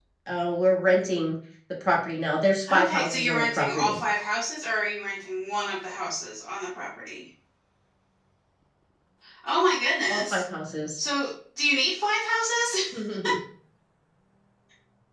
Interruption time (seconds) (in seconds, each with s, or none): 2.7 s